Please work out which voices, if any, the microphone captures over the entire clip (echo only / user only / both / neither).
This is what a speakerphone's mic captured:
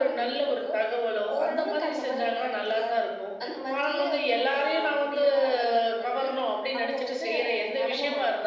echo only